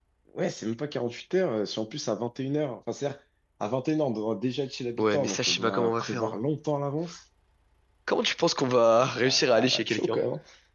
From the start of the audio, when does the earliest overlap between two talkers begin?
5 s

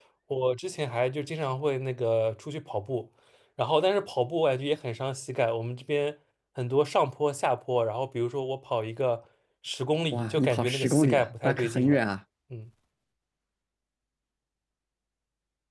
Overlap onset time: 10 s

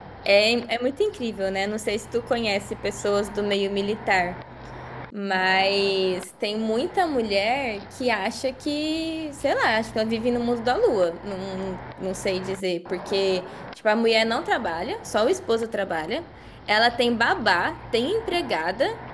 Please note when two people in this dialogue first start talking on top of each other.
none

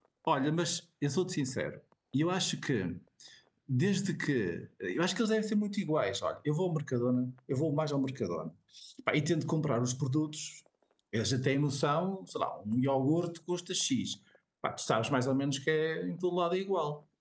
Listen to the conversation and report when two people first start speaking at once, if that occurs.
none

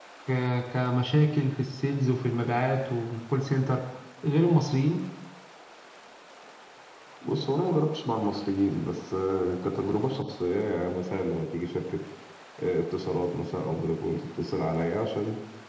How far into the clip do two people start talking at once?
none

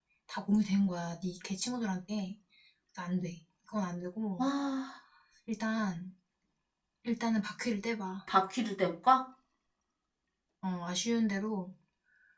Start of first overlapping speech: none

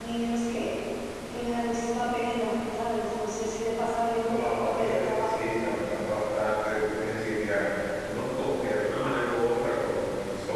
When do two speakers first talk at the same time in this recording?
4 s

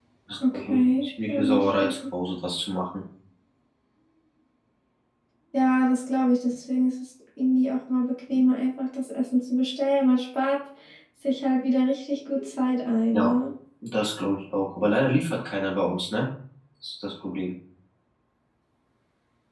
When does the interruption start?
1 s

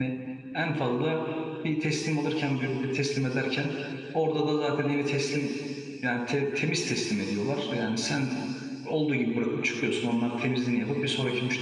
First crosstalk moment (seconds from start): none

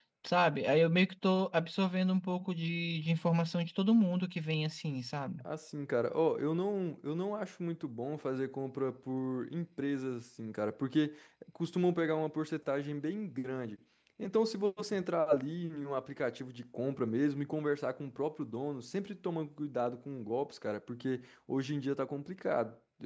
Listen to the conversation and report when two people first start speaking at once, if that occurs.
none

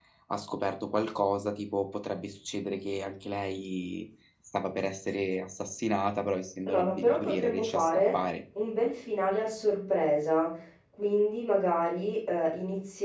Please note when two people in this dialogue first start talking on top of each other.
7 s

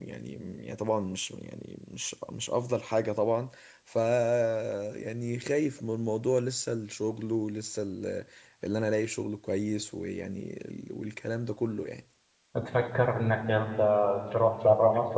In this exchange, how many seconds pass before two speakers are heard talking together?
none

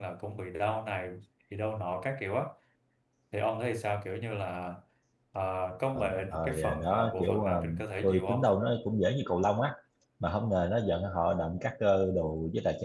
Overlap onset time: 6 s

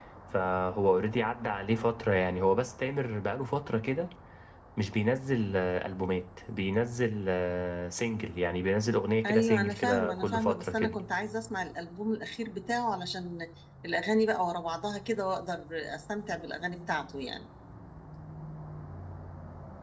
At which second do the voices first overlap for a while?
9 s

